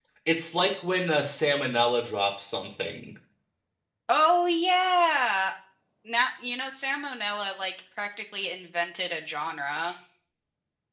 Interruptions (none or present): none